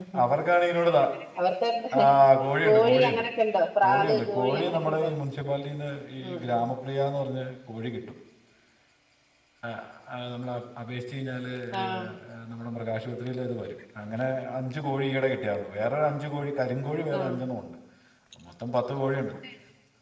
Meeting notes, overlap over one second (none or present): present